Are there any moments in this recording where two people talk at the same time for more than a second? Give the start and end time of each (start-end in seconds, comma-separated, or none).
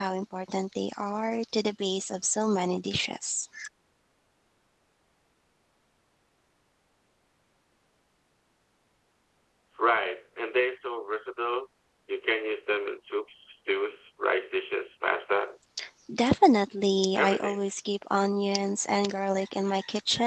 none